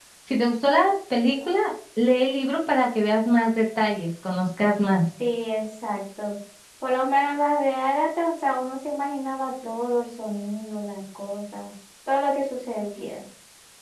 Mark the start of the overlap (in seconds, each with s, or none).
none